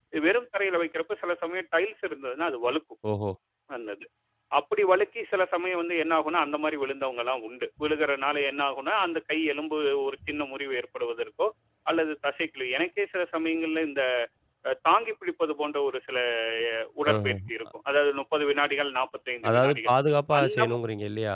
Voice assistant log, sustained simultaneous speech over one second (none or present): none